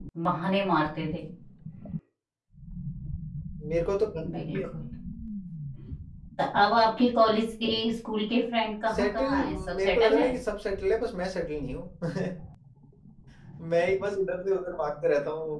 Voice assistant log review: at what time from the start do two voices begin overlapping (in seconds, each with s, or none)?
8.9 s